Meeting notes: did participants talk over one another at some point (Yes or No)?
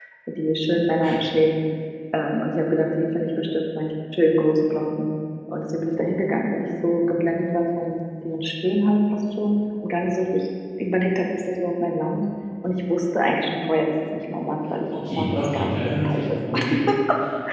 Yes